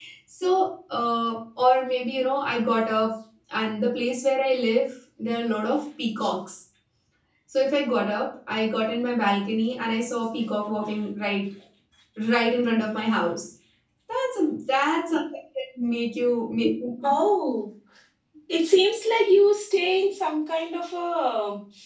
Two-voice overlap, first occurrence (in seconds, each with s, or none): none